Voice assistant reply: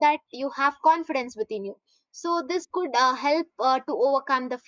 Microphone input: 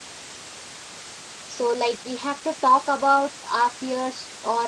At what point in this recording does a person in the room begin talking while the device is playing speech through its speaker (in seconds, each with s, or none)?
1.4 s